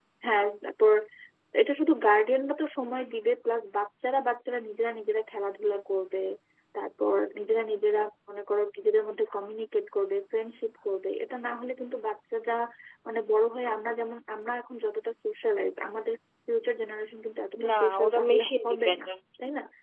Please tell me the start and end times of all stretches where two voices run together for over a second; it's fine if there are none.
17.7-19.1

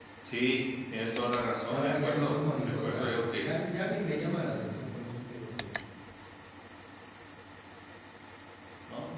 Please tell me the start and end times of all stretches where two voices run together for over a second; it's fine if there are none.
1.7-3.4

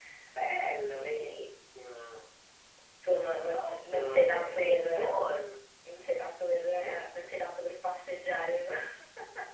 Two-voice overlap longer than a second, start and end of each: 3.5-5.2

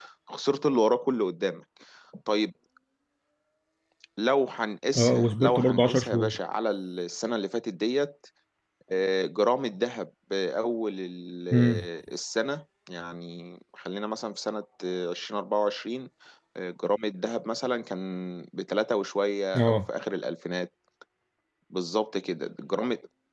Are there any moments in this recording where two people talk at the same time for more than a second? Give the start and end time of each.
5.0-6.4

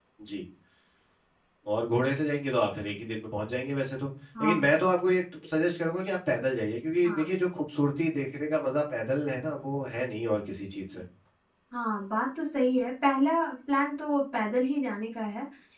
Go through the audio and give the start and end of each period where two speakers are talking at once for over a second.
none

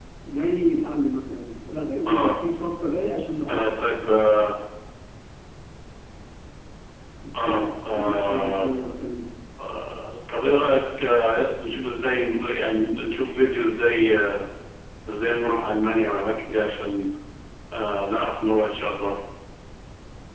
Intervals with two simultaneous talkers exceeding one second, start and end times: 7.4-8.7

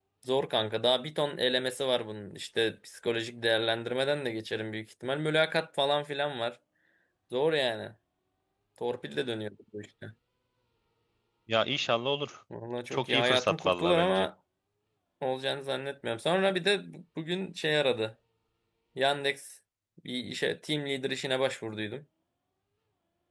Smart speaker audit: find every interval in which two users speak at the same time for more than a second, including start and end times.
12.9-14.3

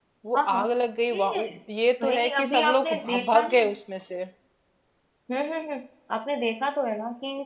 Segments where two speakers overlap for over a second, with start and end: 2.0-3.7

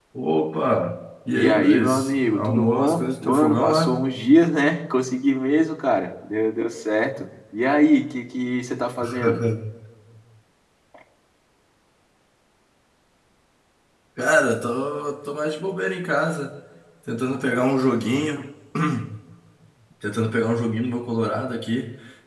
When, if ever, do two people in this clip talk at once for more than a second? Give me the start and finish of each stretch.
1.3-4.0

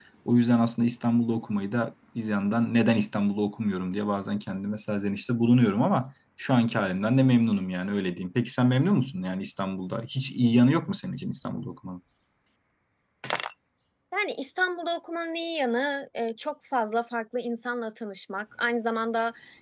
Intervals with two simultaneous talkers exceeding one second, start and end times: none

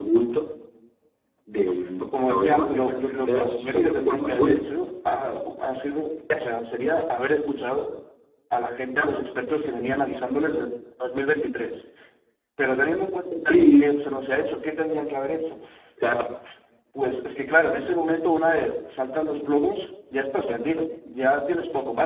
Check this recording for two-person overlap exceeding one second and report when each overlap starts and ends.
2.3-4.6

